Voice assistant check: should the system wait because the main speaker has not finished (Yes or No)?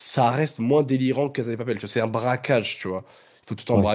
Yes